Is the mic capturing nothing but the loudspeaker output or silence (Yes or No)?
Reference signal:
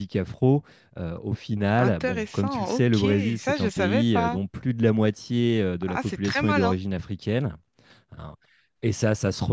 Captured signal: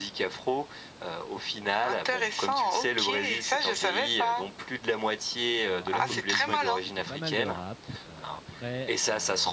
No